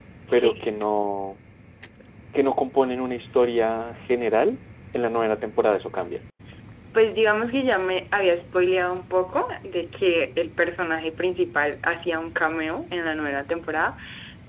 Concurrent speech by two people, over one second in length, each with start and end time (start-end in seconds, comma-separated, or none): none